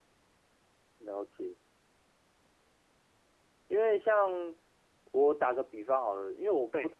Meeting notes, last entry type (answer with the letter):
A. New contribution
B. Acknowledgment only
B